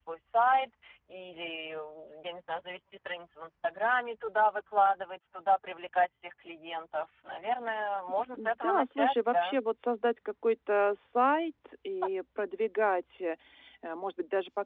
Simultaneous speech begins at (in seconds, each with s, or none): 8.3 s